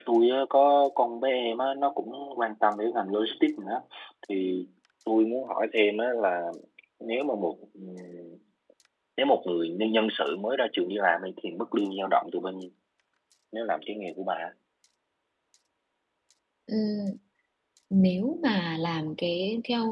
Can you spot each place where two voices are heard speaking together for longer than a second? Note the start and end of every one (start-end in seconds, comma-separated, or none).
none